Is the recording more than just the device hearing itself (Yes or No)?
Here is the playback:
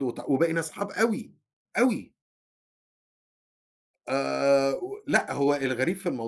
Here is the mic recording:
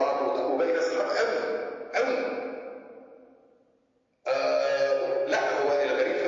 No